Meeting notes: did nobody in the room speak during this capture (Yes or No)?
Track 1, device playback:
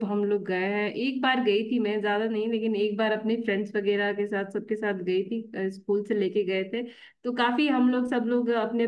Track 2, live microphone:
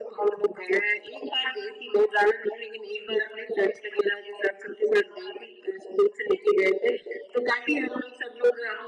Yes